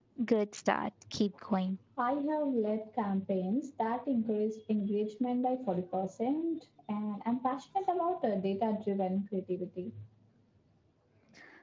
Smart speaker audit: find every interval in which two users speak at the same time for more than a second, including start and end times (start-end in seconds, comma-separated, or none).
none